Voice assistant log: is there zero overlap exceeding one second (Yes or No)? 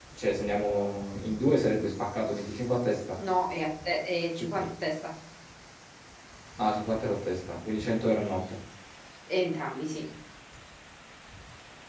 Yes